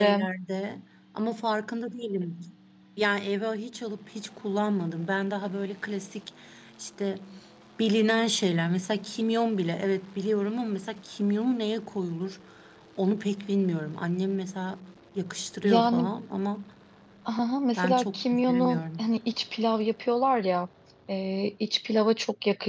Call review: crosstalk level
present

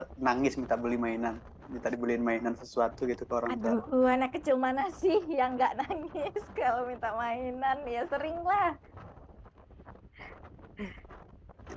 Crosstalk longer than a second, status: none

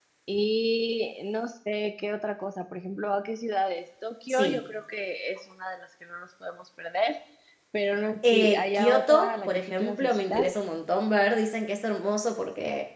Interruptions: present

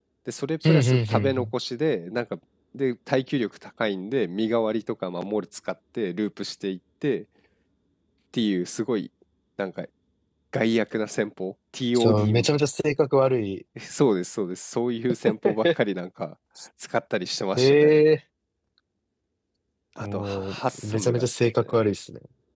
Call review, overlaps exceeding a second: present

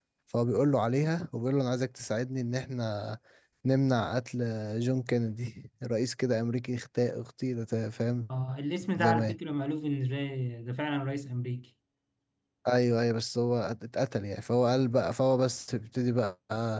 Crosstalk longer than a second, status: none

